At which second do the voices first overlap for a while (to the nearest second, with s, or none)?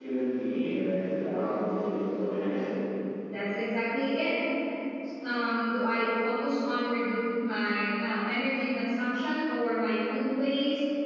none